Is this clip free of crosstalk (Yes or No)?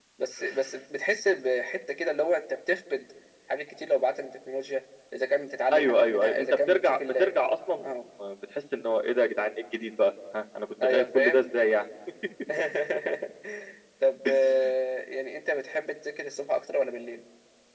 No